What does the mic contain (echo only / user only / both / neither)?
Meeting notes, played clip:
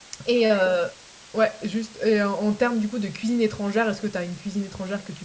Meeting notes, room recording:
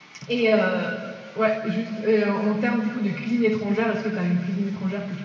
echo only